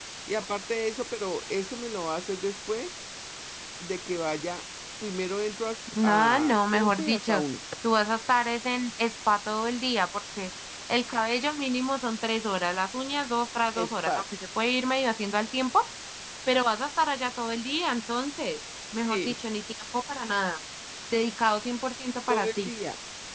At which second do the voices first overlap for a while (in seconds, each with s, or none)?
6.0 s